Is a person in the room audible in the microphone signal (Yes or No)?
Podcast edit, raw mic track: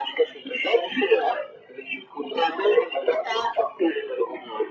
No